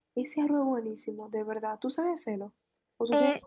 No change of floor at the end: No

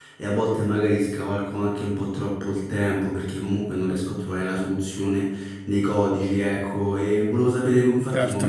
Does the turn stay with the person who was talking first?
Yes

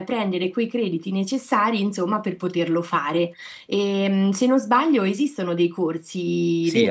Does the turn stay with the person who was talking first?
No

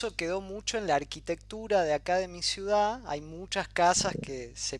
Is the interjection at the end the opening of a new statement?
No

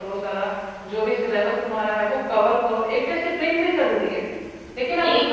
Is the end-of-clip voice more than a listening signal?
No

